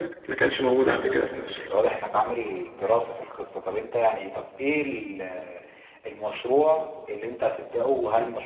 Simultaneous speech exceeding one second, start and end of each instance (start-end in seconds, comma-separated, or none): none